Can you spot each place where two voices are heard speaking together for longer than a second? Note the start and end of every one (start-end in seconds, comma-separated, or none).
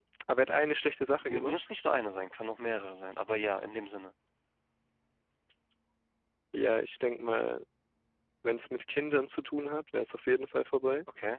none